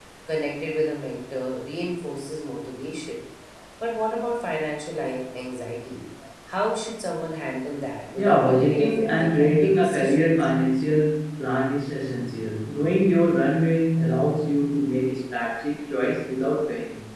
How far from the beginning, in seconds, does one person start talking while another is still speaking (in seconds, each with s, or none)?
8.2 s